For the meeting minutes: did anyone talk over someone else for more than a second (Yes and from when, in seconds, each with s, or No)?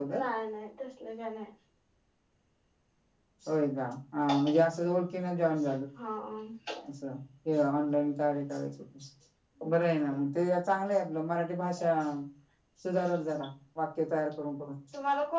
No